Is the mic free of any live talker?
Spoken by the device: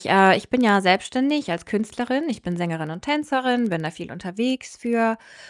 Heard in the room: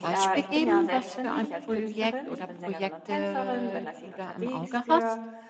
No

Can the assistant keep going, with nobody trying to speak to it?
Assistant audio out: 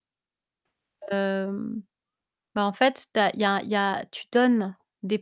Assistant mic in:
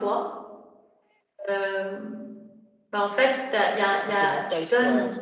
No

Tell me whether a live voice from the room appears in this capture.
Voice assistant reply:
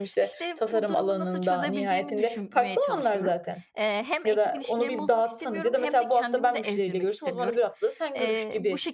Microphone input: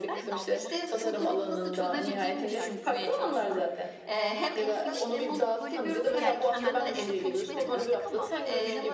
Yes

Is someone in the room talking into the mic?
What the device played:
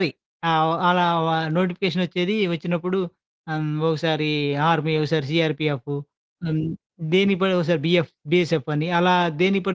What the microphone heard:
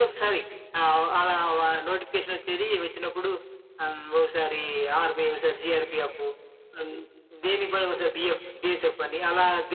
No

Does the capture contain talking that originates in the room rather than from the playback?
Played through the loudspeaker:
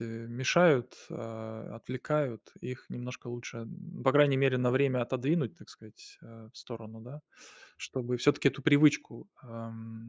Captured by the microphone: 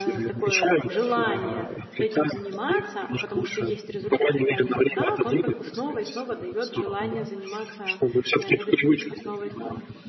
Yes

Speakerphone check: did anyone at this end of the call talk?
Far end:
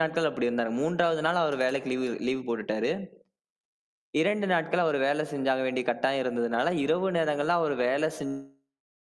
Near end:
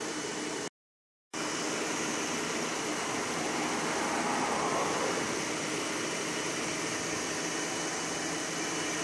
No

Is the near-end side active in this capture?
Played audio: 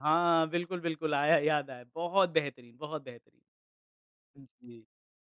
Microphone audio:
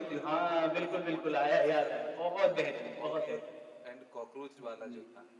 Yes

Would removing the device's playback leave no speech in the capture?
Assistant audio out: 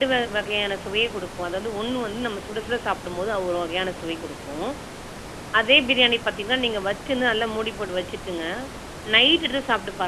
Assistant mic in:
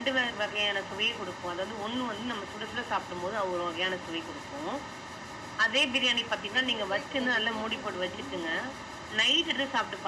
No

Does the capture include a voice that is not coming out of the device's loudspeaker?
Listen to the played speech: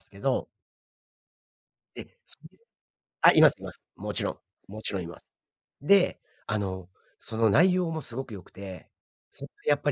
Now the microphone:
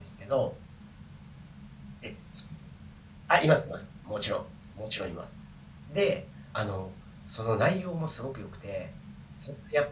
No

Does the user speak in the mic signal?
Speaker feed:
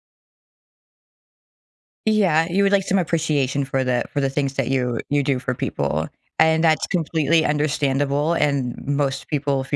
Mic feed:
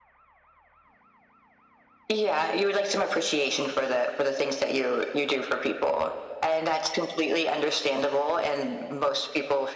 No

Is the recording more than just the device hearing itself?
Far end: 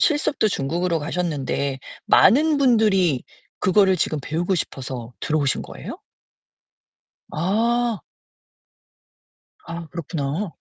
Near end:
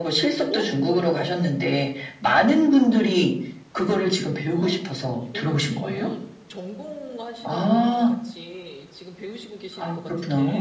Yes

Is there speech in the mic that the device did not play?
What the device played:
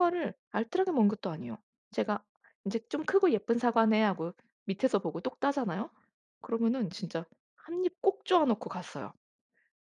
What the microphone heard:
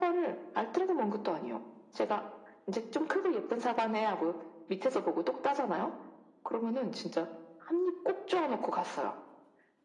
No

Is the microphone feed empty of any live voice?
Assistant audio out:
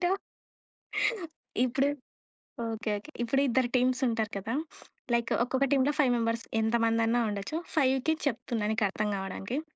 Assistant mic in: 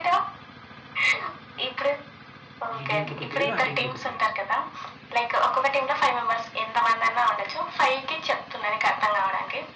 No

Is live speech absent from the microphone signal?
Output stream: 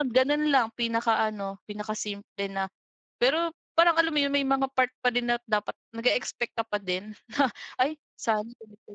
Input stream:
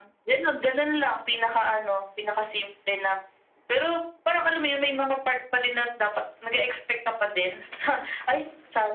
Yes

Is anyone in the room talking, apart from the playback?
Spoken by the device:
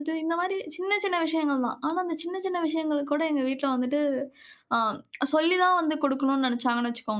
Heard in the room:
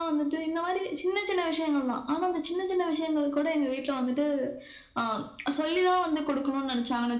No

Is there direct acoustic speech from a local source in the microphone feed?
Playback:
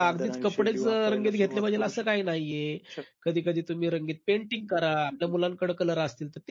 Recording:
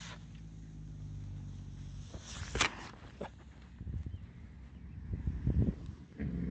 No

